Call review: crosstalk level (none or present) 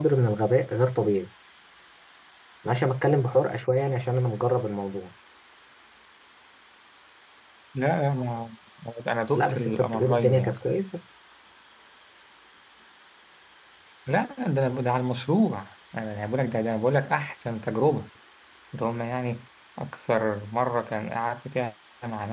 present